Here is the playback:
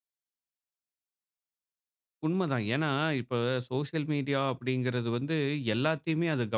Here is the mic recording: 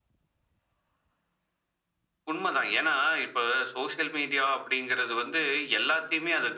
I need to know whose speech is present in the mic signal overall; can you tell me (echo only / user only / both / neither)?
echo only